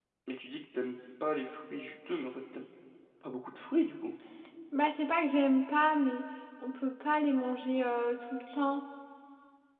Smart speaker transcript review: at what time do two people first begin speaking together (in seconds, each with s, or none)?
none